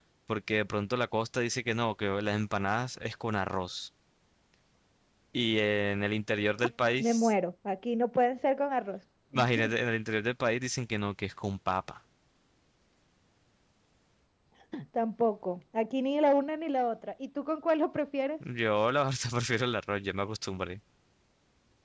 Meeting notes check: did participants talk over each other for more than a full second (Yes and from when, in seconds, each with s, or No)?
No